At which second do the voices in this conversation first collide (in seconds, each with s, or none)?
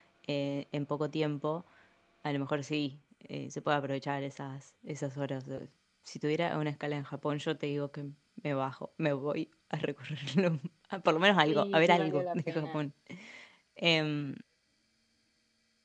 11.5 s